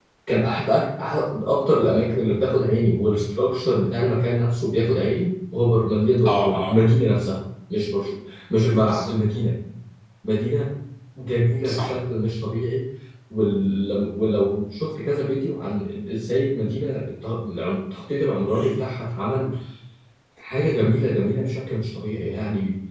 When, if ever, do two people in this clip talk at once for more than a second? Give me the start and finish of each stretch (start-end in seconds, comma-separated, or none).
none